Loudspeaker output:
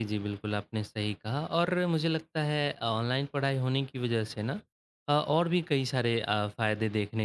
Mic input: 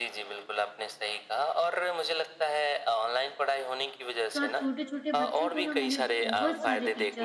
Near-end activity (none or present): present